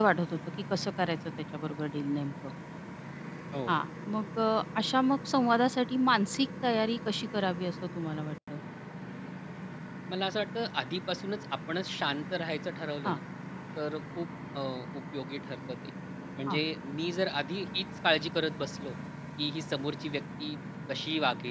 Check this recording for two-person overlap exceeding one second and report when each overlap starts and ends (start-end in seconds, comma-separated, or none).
none